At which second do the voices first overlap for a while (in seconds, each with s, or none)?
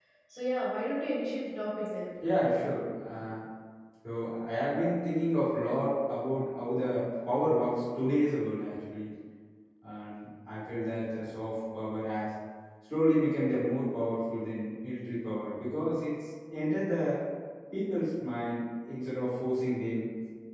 none